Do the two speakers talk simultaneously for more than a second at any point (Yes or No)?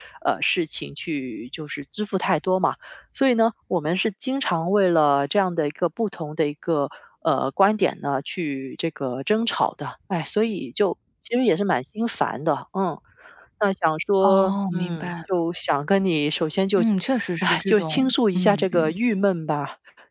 Yes